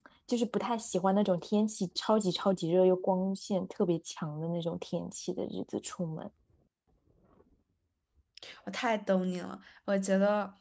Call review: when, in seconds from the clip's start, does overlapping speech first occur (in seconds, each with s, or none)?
none